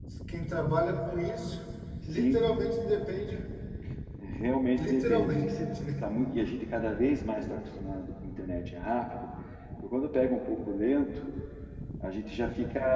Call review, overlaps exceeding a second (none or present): present